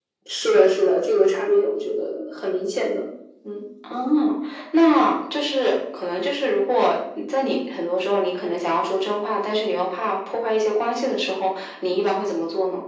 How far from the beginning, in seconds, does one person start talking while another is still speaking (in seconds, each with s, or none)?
none